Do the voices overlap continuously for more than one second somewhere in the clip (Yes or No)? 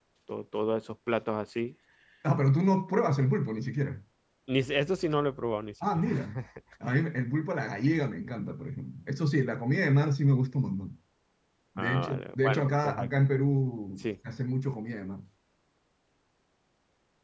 Yes